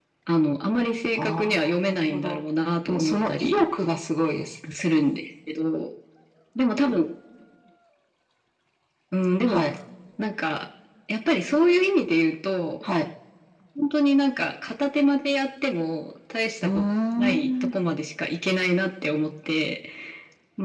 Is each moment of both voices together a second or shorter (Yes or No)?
No